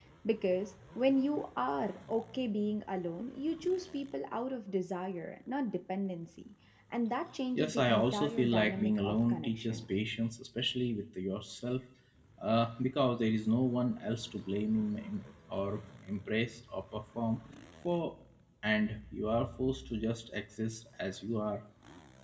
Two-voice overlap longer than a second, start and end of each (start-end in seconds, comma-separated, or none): 7.6-9.8